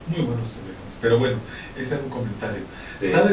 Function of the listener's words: listening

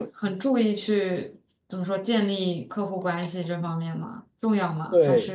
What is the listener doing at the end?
taking over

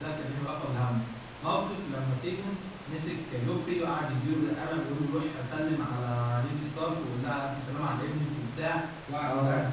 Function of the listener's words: listening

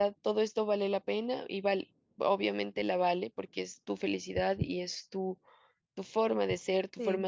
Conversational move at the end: listening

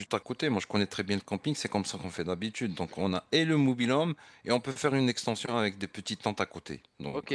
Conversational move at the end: taking over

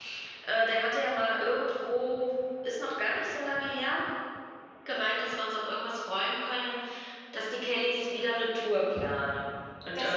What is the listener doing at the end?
taking over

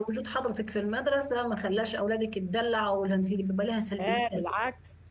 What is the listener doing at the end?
taking over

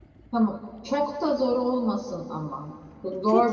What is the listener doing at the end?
taking over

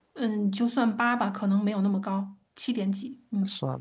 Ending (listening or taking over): taking over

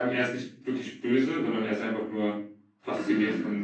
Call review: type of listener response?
taking over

